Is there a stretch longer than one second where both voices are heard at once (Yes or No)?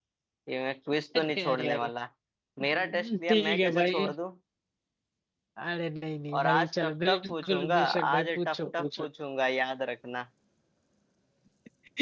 Yes